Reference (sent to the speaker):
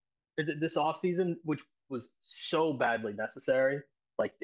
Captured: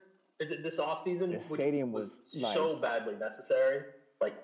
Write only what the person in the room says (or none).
the stadium was like